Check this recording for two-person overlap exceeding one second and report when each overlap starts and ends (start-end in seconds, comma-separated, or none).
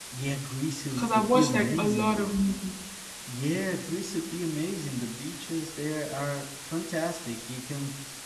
0.9-2.3